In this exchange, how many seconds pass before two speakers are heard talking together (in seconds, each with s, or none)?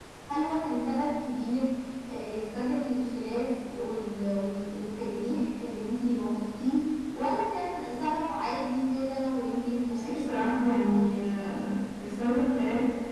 10.1 s